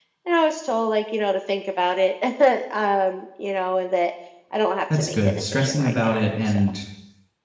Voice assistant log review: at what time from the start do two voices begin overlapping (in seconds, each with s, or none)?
4.9 s